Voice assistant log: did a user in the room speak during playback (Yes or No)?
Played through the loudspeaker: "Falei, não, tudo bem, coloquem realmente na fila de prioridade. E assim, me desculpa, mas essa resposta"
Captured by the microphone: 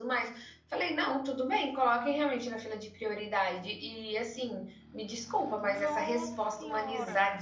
Yes